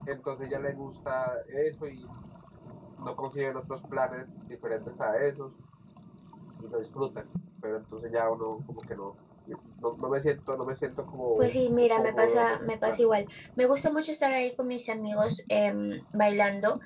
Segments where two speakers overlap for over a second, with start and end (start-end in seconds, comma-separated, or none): 11.4-13.0